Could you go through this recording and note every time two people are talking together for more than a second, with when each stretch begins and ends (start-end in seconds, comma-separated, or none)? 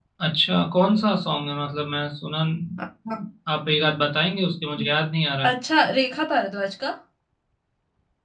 none